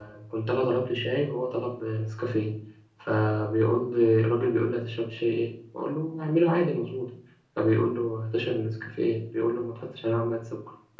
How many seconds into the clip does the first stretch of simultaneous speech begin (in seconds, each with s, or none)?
none